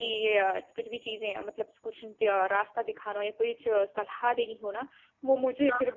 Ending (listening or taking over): listening